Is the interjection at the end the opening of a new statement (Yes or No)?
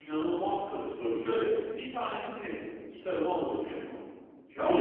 Yes